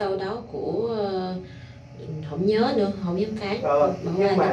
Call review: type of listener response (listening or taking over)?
taking over